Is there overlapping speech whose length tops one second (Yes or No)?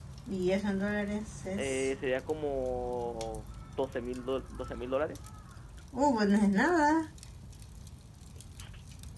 No